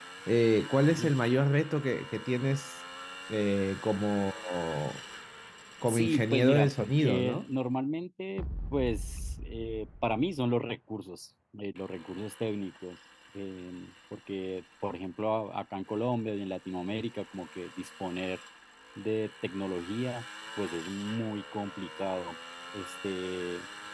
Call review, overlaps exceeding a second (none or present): present